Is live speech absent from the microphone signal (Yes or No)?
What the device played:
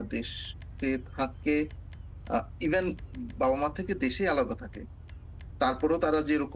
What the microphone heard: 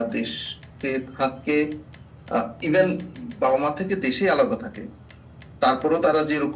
Yes